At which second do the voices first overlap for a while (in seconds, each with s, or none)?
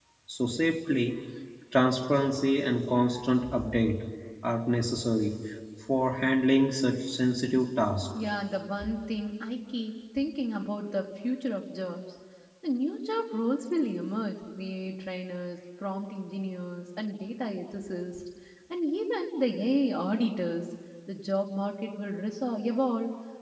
none